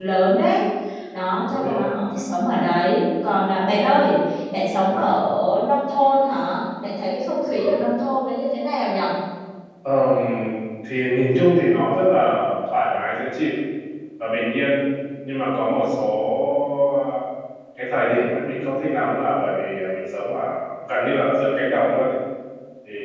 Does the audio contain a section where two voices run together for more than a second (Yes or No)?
No